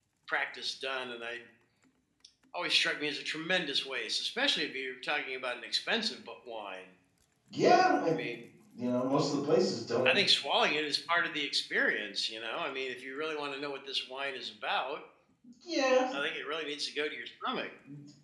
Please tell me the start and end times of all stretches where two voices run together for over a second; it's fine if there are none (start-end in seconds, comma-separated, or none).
none